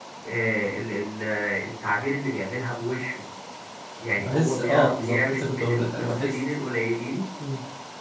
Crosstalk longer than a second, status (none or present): present